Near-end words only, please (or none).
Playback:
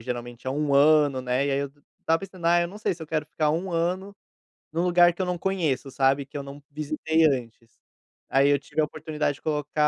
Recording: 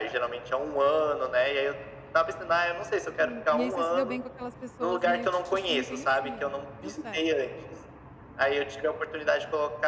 Hum, e aí você se deu bem com aquelas pessoas meio que você não conhecia, né. Deu certo.